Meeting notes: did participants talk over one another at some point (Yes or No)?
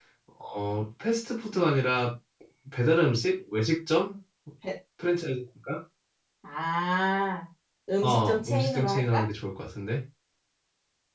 Yes